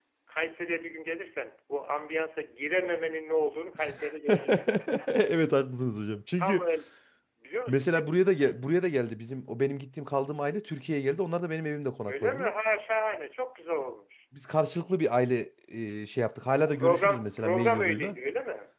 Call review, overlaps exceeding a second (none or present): present